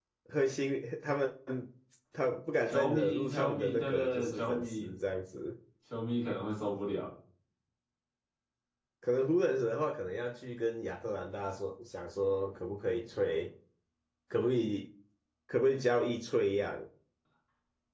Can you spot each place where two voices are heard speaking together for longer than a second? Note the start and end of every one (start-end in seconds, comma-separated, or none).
2.7-4.9